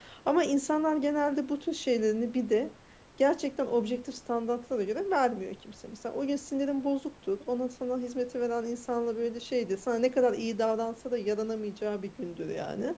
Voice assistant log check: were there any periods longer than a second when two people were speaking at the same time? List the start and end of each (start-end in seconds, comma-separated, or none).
none